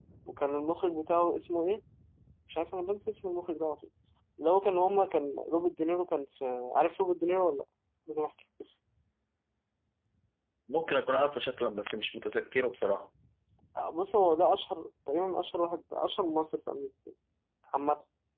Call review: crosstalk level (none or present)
none